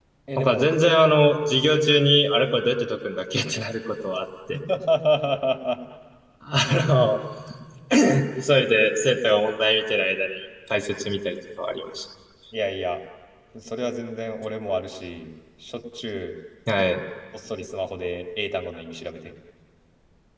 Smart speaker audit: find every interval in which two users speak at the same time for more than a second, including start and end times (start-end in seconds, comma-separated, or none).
none